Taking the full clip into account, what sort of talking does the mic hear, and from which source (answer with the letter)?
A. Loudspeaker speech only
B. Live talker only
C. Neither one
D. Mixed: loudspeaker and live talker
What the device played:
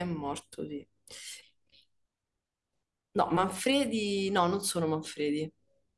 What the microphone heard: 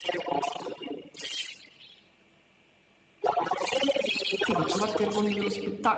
D